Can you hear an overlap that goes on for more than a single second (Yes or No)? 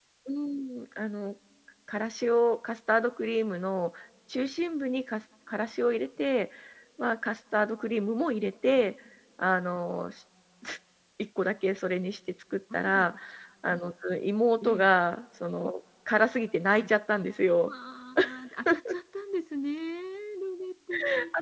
No